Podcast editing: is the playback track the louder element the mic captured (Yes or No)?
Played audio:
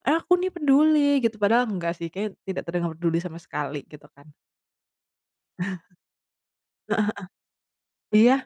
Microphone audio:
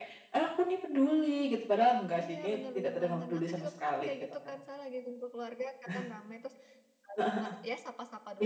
Yes